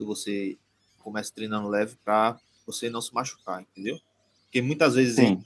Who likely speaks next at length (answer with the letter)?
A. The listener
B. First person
B